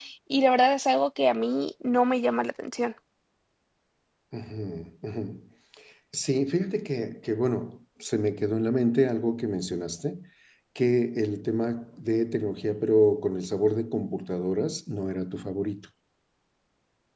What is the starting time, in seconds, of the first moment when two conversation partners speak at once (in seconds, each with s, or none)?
none